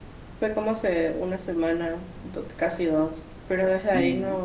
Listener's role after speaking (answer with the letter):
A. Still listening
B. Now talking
A